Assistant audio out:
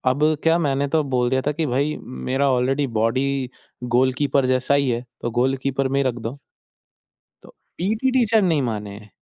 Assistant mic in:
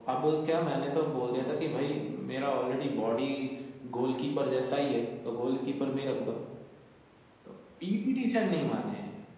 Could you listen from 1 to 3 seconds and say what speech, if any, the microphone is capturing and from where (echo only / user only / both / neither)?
echo only